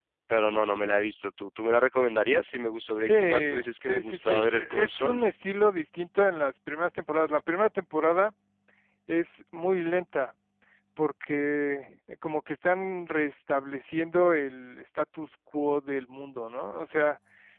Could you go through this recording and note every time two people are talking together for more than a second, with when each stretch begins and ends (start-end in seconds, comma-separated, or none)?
3.0-5.2